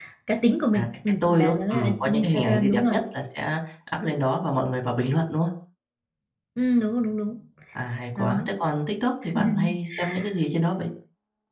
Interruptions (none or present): present